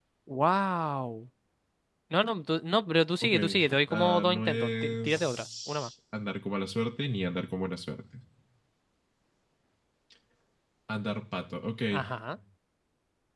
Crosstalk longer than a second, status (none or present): present